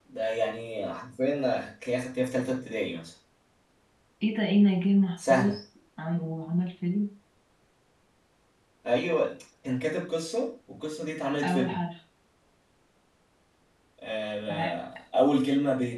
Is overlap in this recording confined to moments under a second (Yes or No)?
Yes